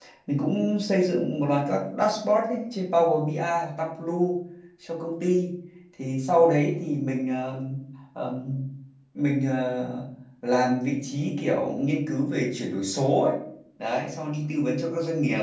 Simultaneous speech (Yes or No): No